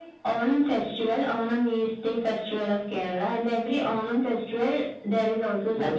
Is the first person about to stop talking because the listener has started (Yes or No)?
Yes